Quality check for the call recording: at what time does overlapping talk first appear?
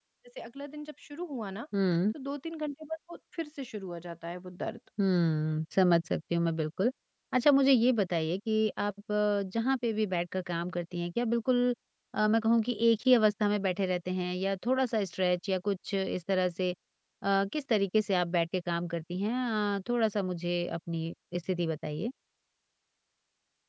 none

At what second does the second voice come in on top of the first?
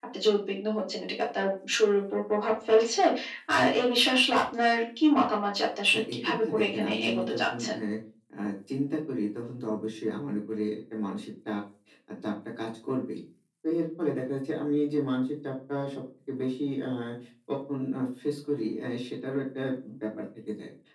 5.9 s

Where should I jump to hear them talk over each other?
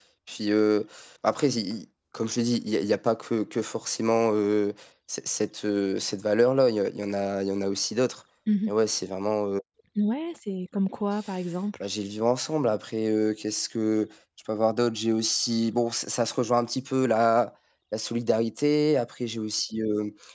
none

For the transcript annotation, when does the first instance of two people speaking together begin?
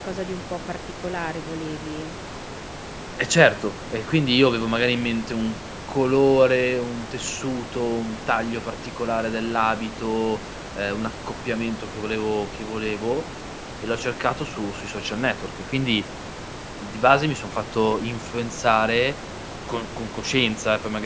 none

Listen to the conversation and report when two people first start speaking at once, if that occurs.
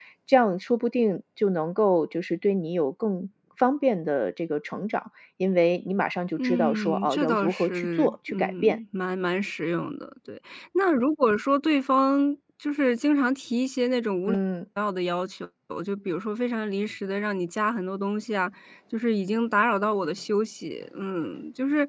6.4 s

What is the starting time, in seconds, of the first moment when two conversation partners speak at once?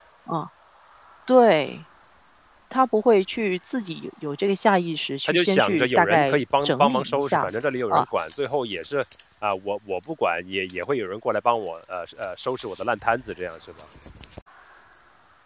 5.3 s

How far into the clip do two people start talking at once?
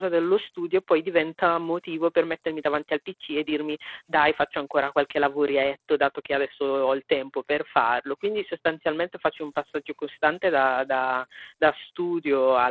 none

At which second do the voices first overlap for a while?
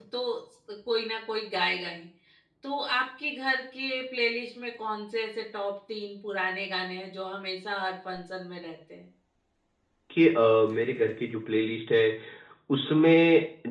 none

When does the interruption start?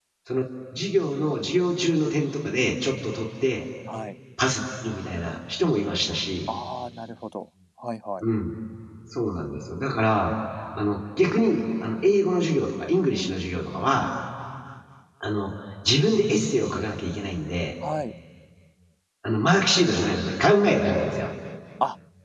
none

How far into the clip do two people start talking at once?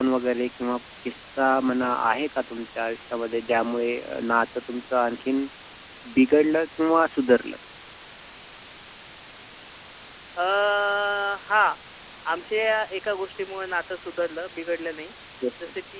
none

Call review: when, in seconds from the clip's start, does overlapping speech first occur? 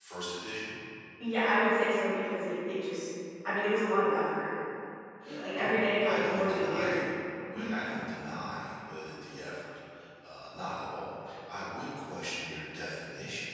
5.5 s

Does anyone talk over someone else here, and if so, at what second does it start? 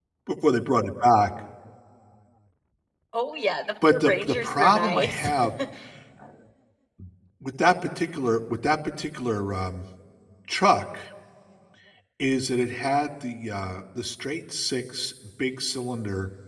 3.9 s

